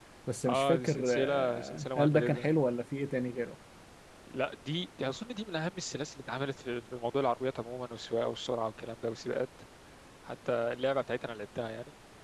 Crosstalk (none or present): present